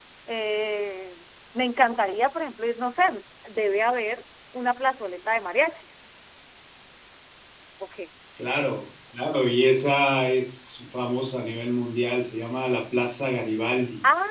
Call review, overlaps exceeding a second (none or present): none